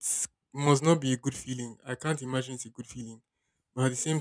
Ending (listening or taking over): listening